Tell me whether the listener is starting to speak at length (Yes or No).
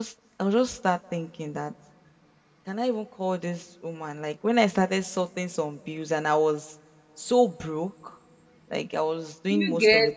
No